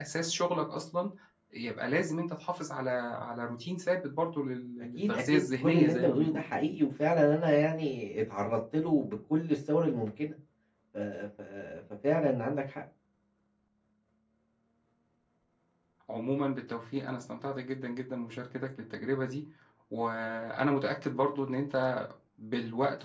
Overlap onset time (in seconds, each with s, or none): 5.0 s